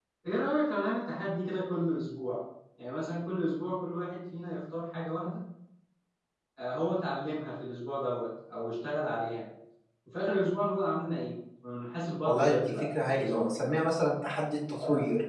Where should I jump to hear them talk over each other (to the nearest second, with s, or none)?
12 s